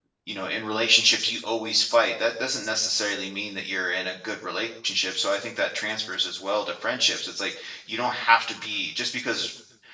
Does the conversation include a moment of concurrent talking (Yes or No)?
No